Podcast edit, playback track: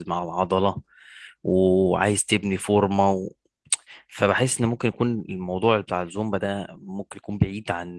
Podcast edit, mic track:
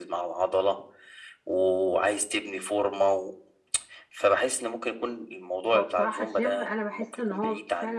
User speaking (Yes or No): Yes